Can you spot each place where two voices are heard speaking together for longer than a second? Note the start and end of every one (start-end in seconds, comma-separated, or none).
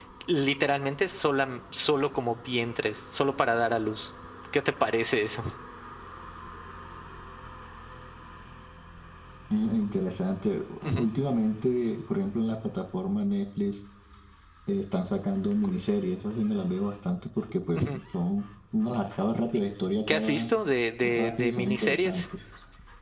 21.0-22.2